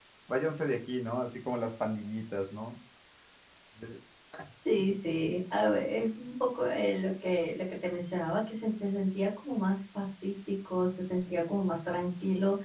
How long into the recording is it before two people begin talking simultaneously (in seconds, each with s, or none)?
none